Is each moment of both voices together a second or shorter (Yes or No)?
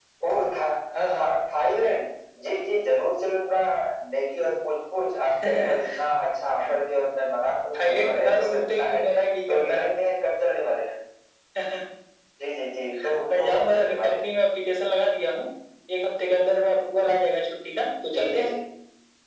No